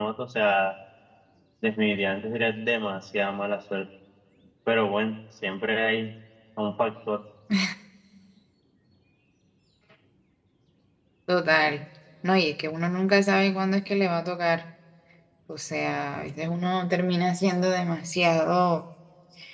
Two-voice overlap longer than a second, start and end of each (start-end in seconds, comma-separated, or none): none